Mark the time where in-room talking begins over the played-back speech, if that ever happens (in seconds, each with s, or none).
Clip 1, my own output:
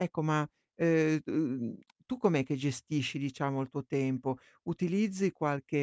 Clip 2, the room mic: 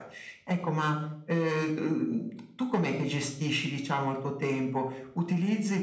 none